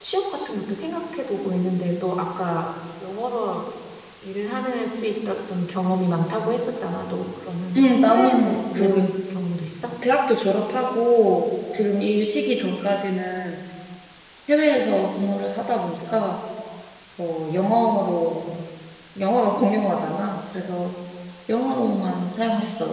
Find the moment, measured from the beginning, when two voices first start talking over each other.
8 s

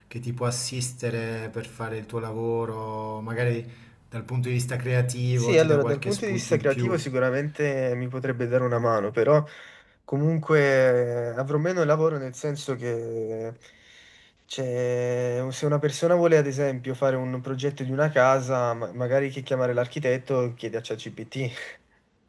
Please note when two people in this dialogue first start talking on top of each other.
5 s

